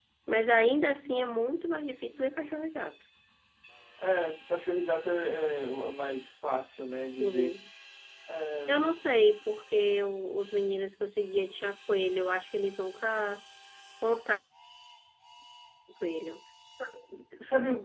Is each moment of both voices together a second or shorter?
Yes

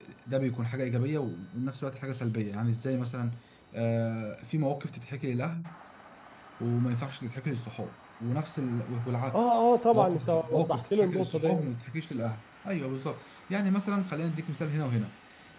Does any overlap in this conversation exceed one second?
Yes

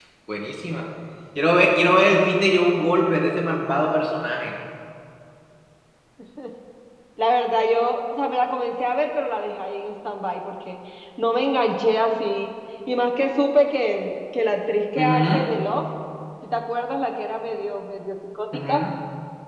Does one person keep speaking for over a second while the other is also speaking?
No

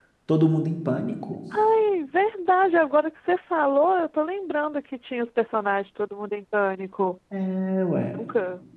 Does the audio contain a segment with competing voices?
No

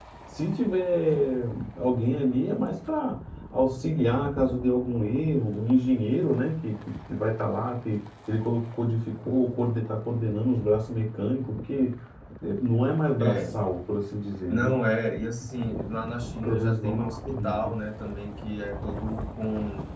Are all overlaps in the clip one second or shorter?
No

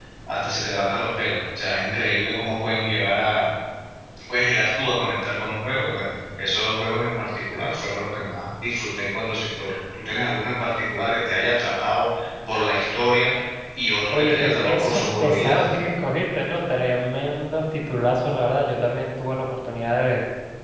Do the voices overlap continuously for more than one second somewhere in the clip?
Yes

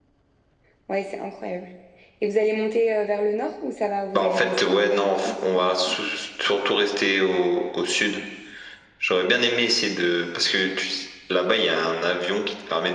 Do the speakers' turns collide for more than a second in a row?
Yes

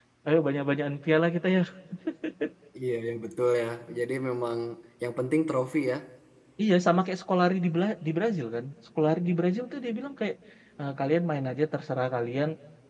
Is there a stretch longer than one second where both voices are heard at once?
No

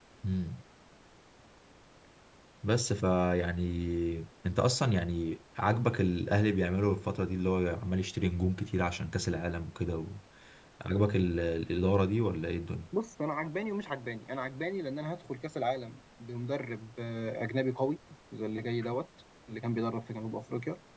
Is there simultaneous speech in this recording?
No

